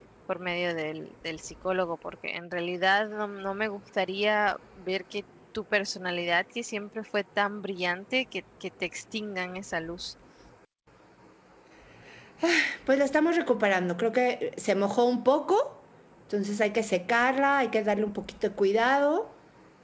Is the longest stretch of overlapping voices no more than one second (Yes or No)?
Yes